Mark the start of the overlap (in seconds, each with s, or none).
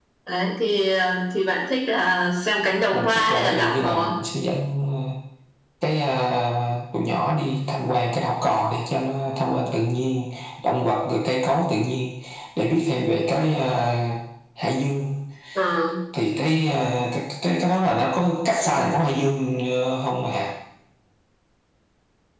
2.9 s